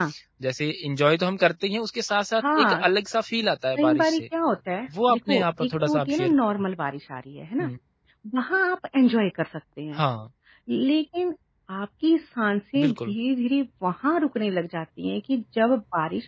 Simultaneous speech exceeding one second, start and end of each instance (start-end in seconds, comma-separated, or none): 5.1-6.5